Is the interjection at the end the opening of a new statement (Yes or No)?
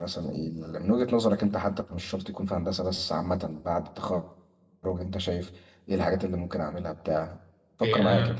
Yes